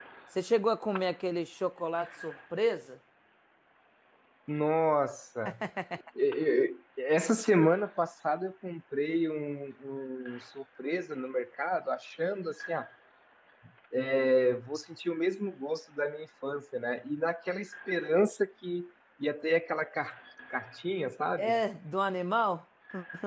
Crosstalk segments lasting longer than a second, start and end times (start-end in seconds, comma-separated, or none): none